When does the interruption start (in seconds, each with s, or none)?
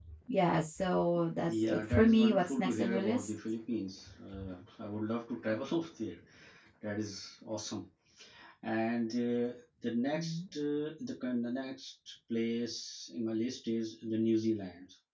1.5 s